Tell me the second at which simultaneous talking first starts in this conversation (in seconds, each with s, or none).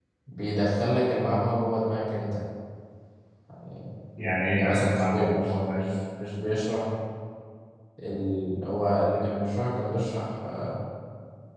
4.6 s